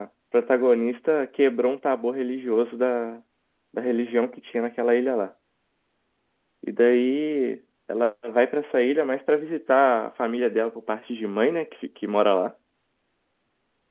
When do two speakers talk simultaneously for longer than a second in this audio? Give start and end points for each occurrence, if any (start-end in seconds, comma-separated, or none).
none